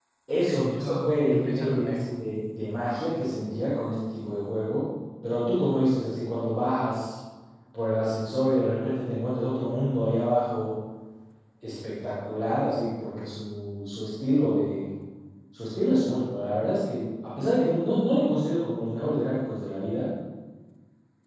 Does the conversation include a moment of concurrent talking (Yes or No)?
Yes